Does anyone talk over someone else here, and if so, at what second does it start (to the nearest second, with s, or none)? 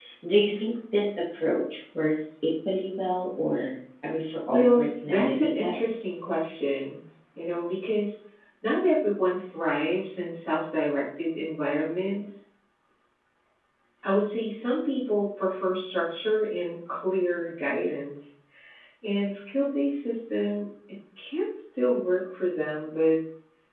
4 s